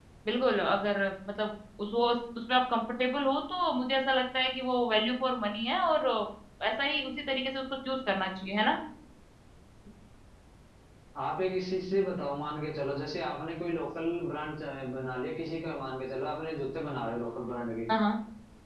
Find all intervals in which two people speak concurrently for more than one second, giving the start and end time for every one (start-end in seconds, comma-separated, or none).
none